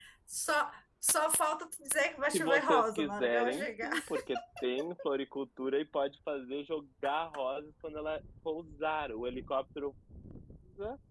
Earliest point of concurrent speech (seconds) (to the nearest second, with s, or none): 2 s